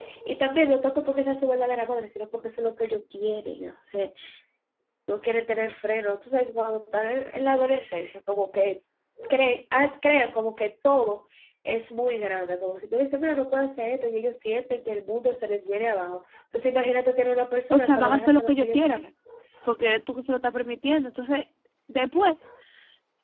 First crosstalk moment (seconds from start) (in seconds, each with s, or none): 17.7 s